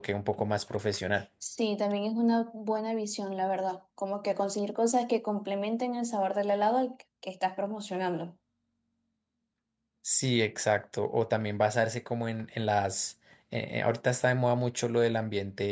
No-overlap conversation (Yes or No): Yes